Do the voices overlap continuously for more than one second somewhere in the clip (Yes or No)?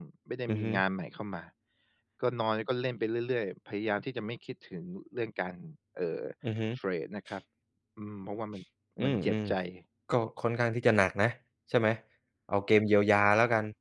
No